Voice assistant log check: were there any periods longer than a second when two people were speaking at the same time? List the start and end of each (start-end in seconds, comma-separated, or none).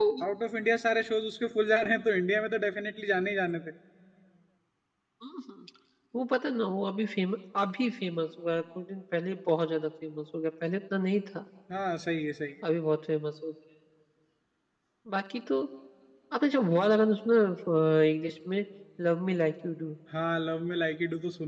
none